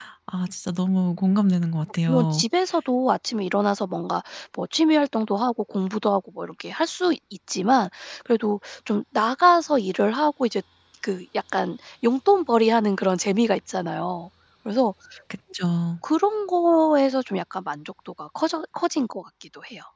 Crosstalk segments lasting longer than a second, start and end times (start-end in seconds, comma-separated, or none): none